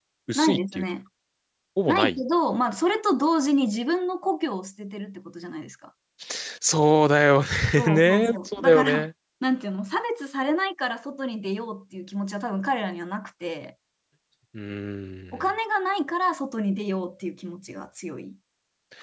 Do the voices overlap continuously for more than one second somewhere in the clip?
Yes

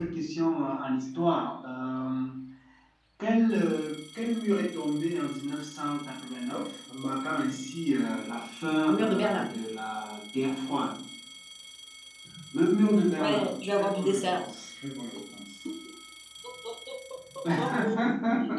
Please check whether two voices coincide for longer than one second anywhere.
Yes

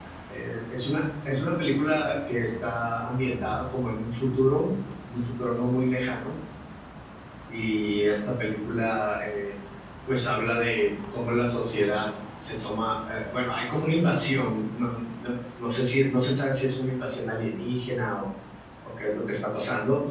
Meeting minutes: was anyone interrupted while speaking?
No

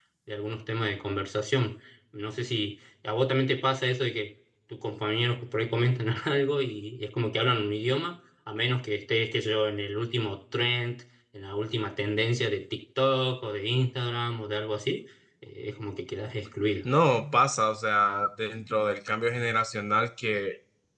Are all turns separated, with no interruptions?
Yes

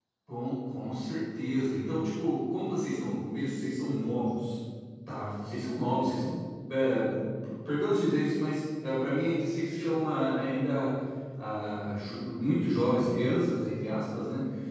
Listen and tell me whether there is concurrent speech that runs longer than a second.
No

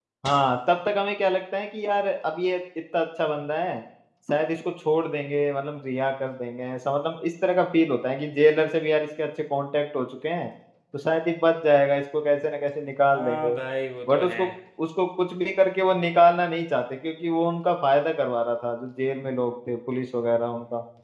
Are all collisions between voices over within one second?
Yes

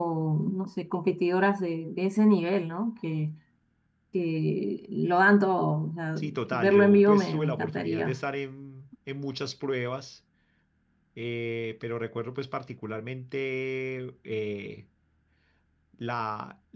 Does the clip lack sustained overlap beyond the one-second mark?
No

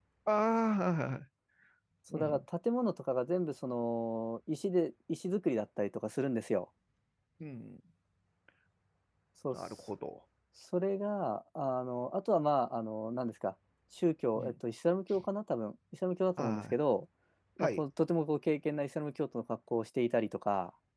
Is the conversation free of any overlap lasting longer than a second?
Yes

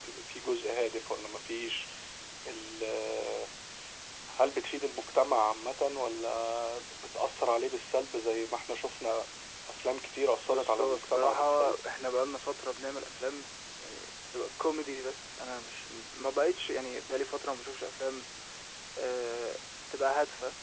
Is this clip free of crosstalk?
No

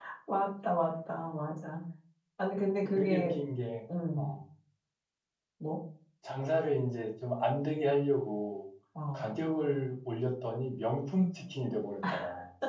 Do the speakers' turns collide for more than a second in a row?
No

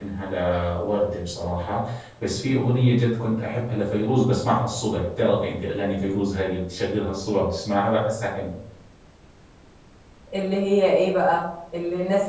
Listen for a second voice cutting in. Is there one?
No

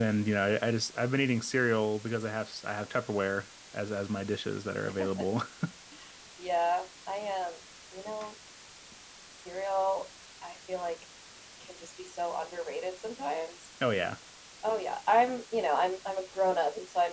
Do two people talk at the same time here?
No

